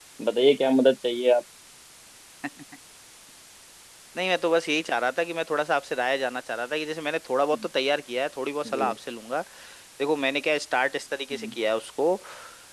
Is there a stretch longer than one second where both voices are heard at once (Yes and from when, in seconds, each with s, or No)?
No